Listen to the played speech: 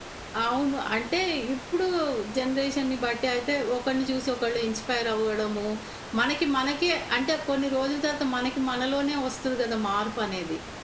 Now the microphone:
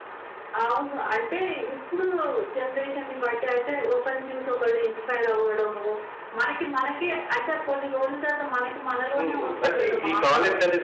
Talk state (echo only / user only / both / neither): both